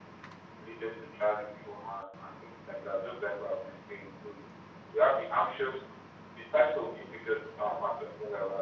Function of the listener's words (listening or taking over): listening